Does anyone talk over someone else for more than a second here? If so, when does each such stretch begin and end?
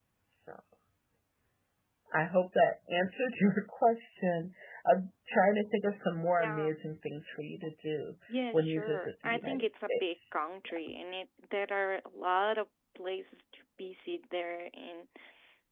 8.5-10.4

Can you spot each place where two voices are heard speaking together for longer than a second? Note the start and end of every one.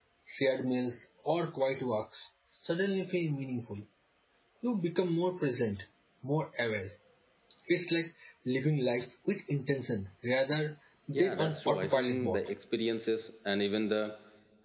11.1-12.4

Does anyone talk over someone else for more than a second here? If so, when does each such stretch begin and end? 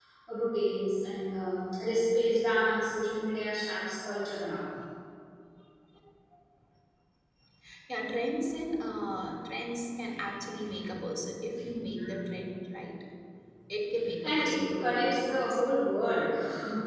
14.2-15.6

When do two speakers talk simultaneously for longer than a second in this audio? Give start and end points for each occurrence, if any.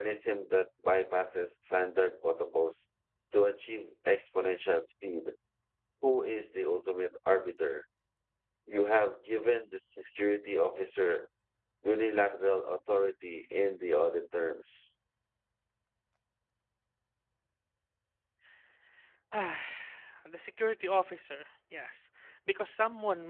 none

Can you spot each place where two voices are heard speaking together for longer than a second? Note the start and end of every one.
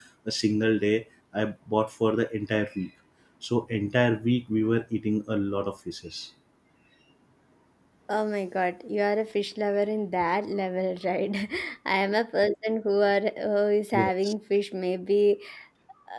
none

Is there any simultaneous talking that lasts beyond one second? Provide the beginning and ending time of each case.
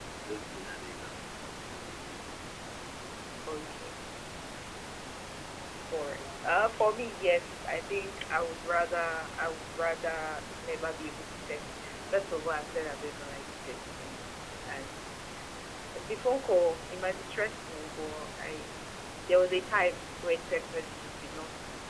none

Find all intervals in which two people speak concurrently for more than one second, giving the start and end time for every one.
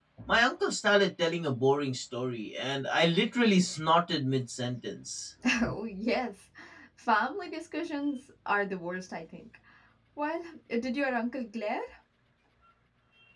none

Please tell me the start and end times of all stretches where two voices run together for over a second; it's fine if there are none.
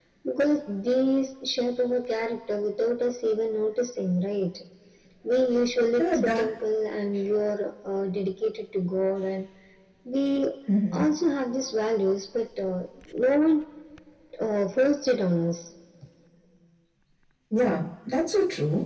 none

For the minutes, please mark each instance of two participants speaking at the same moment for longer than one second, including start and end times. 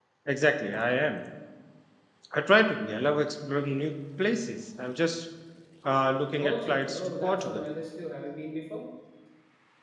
6.4-7.6

